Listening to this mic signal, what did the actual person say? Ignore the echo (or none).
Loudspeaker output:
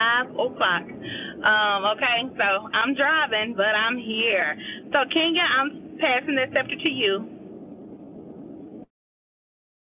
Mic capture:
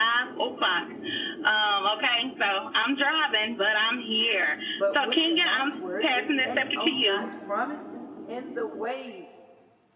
But with tonight's word is standing on God's promises in the wait.